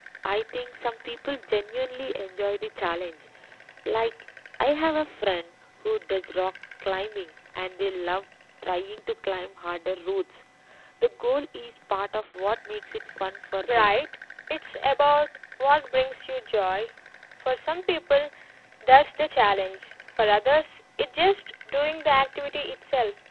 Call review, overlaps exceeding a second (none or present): none